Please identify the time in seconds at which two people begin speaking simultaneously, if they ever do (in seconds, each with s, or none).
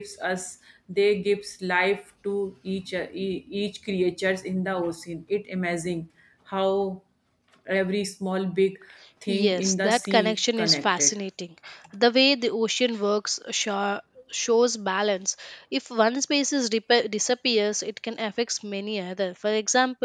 9.3 s